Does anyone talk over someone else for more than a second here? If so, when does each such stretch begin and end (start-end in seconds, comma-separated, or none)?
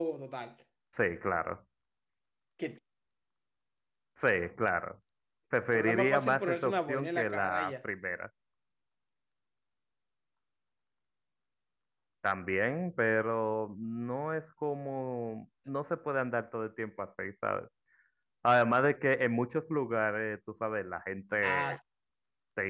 5.7-7.7